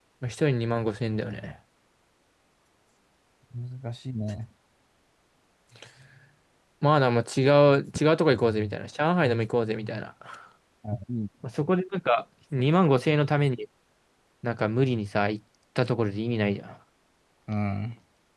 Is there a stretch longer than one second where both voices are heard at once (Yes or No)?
No